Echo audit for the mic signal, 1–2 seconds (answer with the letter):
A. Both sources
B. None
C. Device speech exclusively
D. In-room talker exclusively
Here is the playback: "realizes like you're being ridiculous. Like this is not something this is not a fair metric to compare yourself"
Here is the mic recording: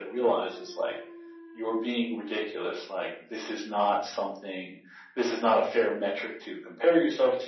C